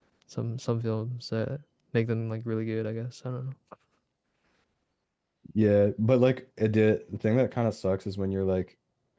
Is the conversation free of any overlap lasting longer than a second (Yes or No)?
Yes